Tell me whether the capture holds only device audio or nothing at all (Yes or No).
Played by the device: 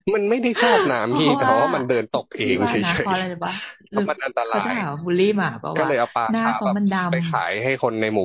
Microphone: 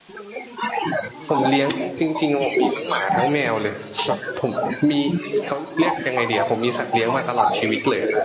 No